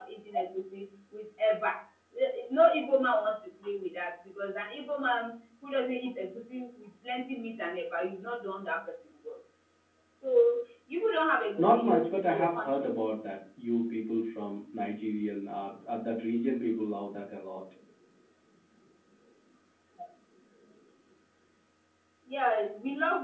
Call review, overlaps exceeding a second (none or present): present